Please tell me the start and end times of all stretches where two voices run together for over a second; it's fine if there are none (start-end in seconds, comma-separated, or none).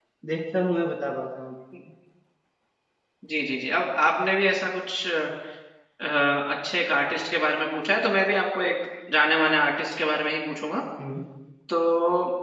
none